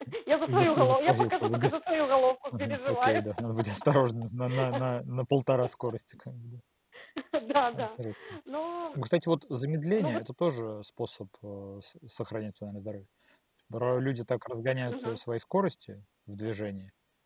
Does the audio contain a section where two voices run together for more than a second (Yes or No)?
Yes